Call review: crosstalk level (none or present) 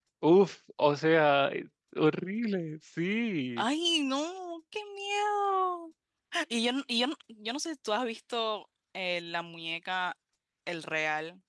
none